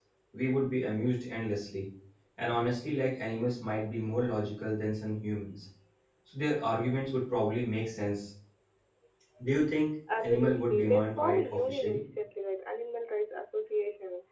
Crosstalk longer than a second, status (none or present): present